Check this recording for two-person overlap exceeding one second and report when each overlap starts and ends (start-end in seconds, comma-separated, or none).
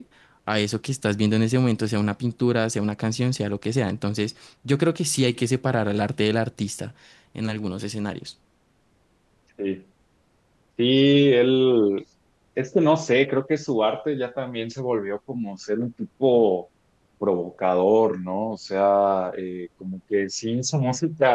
none